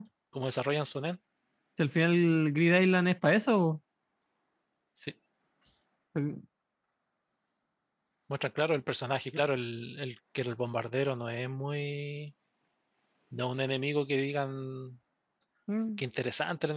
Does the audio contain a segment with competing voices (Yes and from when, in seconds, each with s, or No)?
No